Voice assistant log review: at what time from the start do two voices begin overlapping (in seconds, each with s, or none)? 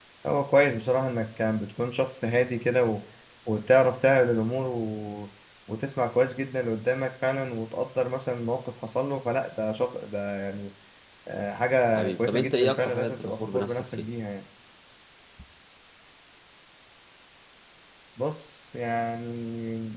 12.0 s